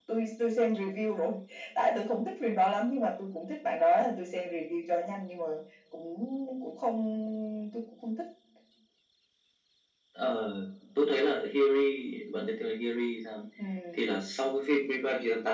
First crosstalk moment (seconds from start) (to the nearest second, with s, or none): none